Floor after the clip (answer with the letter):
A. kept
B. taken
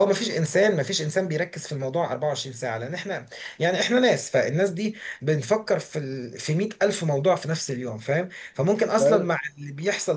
A